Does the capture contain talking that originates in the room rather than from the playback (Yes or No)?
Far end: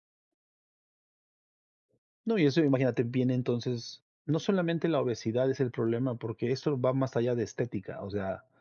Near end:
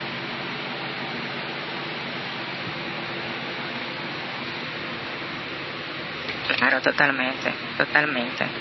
Yes